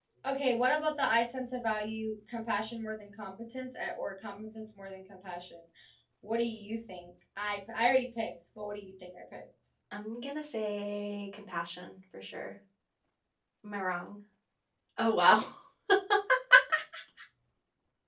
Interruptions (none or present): none